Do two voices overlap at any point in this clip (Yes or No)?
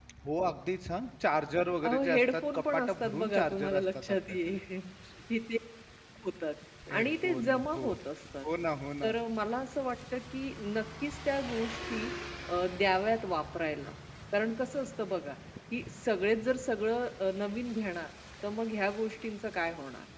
Yes